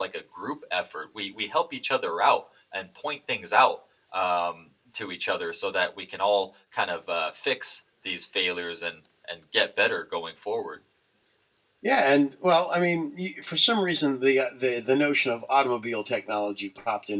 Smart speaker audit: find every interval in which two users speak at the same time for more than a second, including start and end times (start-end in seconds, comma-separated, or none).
none